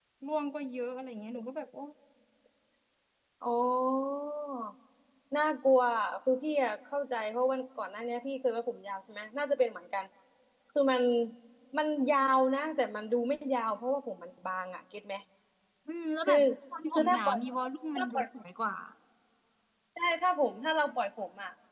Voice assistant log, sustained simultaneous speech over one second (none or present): none